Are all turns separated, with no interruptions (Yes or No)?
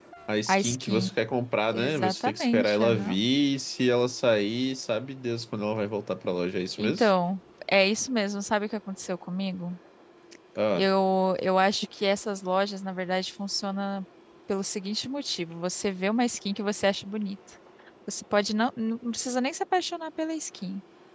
No